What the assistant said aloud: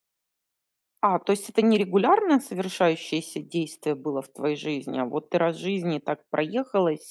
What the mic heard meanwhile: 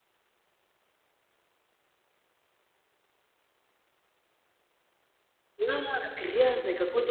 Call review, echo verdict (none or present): none